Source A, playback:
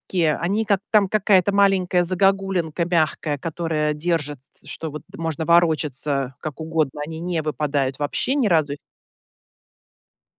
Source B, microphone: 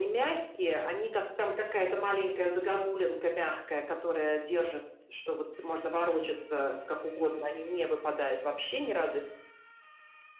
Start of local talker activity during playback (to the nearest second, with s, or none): none